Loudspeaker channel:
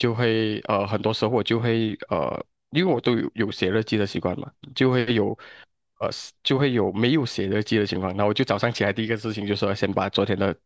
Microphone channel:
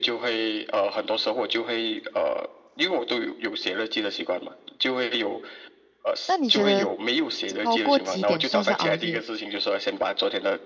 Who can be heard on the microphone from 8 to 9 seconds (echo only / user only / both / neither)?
both